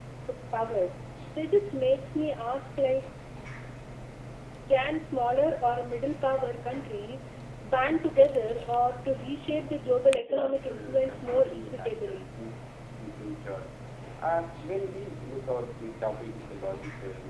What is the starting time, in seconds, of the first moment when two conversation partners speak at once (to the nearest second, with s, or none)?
10 s